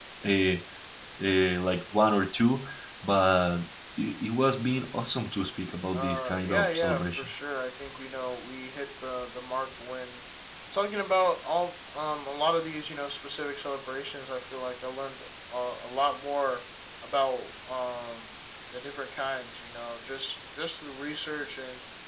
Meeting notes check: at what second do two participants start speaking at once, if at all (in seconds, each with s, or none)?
5.9 s